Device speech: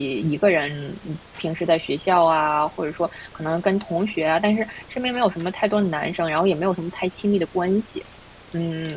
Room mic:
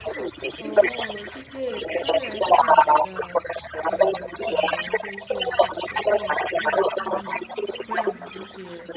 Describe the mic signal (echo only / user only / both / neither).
both